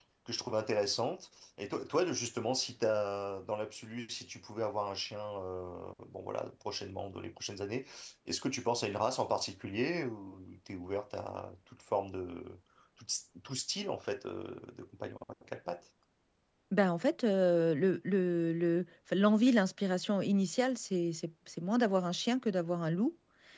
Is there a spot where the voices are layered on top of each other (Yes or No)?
No